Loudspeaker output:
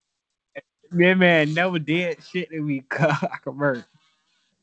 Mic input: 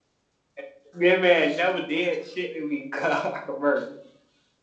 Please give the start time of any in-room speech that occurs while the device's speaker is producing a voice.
none

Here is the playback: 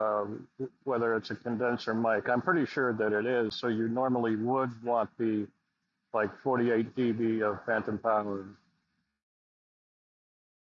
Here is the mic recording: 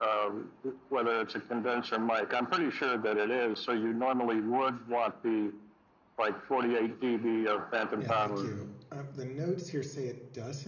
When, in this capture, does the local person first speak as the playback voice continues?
8.0 s

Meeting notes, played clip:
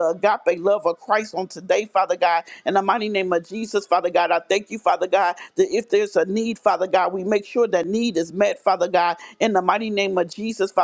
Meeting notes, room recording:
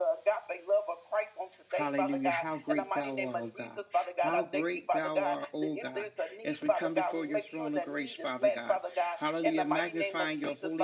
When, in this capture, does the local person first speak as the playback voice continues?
1.7 s

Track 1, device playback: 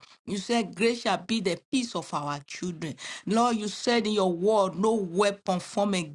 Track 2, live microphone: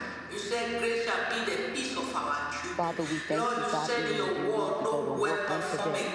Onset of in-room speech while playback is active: 2.7 s

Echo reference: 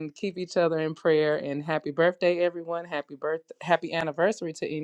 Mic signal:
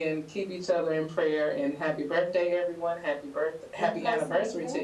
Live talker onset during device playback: 3.8 s

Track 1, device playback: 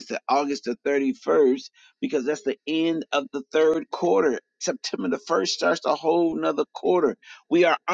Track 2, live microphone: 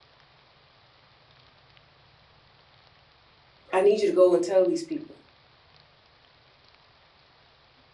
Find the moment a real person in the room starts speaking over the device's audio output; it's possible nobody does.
3.7 s

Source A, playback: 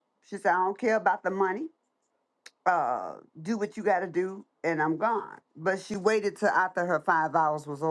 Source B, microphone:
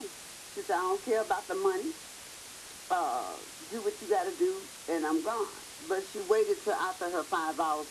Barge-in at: none

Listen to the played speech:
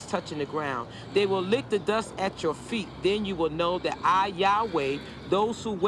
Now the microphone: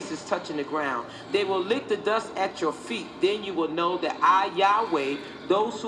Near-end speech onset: none

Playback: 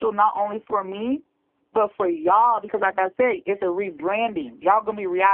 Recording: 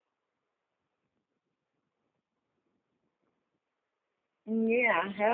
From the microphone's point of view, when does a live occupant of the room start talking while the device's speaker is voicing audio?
4.3 s

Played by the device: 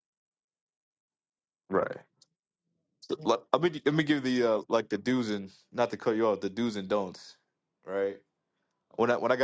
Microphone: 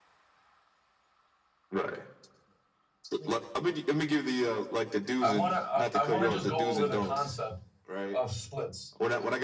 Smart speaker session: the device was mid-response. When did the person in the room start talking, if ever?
5.2 s

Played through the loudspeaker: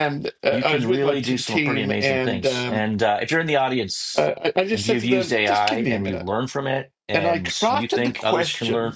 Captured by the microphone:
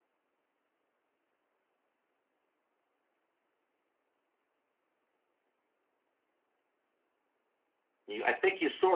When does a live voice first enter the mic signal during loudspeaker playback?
8.1 s

